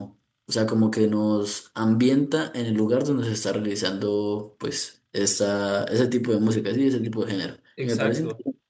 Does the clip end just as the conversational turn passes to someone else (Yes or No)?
Yes